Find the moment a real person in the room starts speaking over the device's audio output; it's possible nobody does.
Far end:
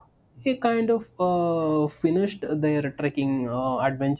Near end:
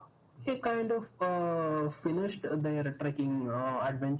none

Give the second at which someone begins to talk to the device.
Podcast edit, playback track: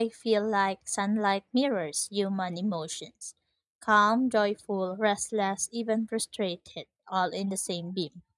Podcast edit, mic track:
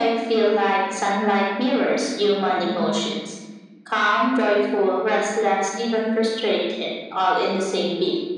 none

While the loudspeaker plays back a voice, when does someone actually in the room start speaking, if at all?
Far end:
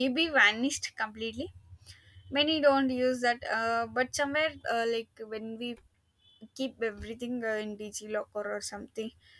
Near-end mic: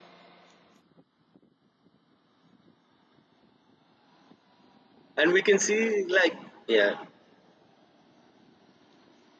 5.2 s

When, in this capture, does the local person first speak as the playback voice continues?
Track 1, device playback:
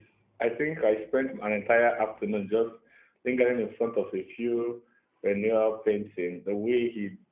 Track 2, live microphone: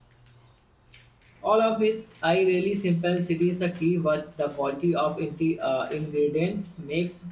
1.4 s

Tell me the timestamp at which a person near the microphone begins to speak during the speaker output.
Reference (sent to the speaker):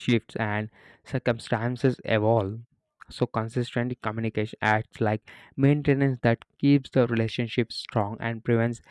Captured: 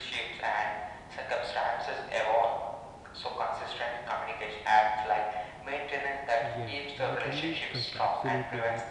6.4 s

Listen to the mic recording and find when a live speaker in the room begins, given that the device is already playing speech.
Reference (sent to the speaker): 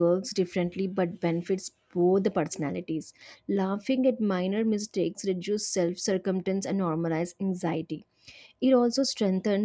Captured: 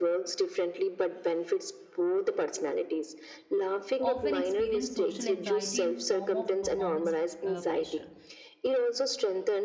4.0 s

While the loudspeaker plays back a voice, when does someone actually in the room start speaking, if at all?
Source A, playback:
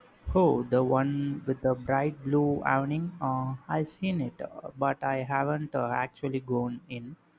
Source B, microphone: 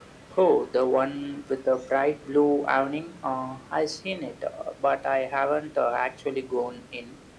none

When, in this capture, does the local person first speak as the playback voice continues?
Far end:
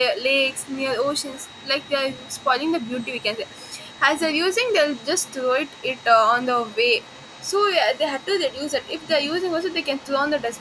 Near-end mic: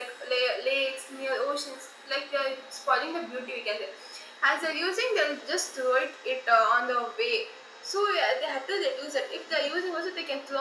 none

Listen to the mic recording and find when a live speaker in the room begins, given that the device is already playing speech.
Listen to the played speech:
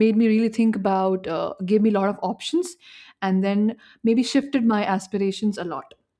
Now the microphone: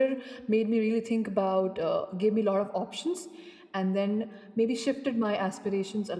none

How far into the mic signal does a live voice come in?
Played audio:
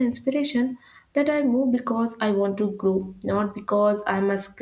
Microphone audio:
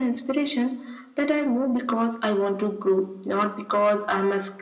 none

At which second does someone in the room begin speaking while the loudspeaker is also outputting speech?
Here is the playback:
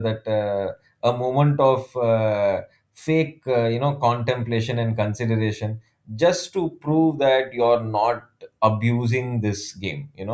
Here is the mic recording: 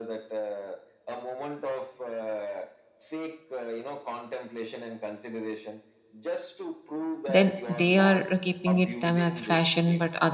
7.3 s

